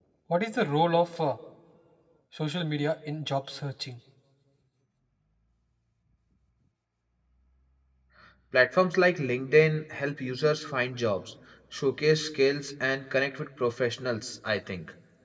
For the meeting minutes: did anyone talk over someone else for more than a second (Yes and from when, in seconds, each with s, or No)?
No